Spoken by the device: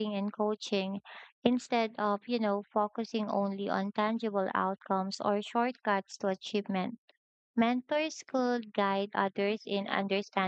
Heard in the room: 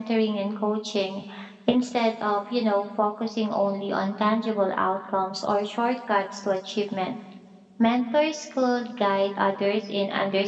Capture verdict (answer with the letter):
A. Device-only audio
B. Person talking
A